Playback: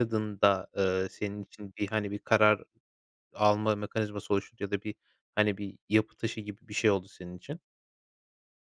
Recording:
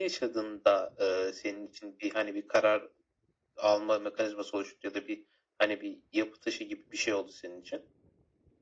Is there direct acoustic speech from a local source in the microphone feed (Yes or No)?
No